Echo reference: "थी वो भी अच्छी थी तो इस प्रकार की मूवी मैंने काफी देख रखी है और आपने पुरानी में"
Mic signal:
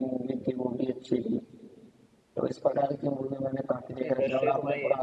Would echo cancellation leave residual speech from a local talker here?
Yes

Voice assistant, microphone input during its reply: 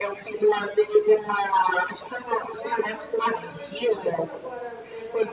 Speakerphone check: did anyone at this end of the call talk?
Yes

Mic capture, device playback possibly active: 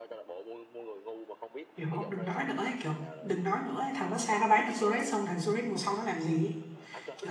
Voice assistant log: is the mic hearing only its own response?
No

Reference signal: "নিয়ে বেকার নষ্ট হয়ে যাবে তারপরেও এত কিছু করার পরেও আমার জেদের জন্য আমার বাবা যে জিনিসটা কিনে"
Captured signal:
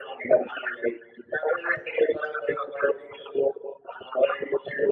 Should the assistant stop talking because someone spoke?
No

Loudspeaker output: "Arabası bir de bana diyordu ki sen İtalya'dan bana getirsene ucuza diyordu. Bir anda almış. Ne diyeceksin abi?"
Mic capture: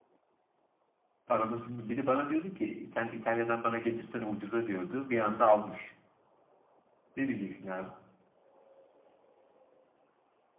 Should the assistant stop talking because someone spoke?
No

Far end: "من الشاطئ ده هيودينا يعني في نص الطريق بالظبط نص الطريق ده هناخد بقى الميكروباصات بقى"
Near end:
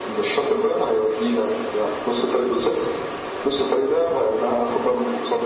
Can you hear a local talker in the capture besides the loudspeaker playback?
No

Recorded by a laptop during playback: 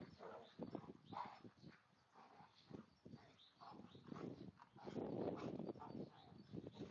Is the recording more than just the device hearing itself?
No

